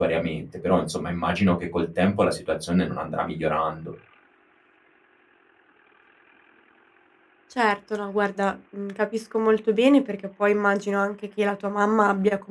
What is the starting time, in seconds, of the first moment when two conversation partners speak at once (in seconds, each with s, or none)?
none